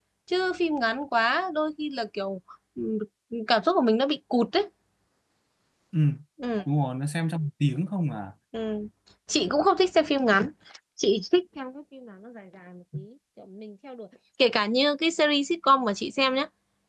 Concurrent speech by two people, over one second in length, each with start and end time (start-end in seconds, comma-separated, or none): none